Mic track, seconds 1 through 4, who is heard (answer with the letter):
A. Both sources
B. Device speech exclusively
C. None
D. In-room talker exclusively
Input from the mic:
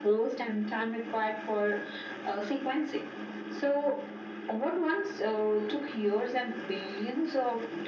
B